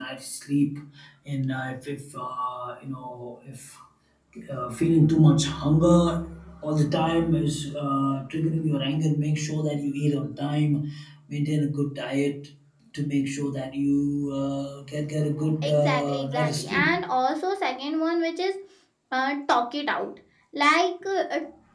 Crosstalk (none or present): present